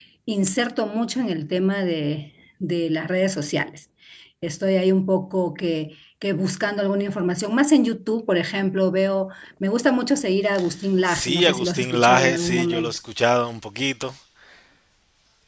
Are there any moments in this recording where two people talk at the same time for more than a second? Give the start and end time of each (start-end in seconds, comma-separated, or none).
11.1-13.0